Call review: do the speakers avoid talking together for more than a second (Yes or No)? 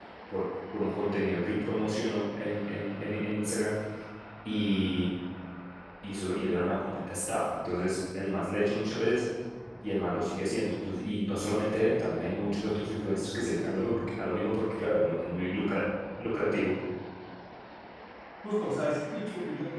Yes